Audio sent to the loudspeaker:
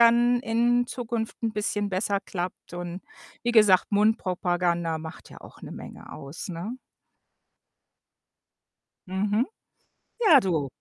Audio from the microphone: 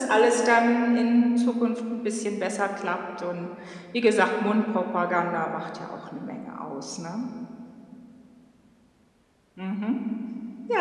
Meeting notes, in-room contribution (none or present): none